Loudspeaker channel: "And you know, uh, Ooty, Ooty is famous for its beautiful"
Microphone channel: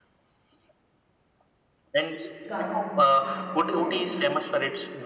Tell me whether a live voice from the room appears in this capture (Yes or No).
Yes